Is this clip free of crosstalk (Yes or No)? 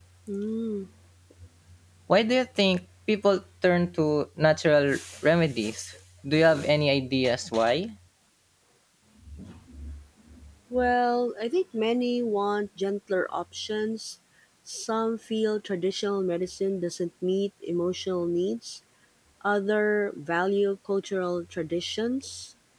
Yes